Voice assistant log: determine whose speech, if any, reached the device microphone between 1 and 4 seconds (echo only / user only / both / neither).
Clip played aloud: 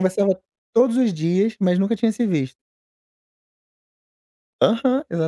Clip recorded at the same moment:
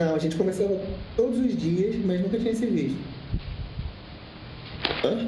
echo only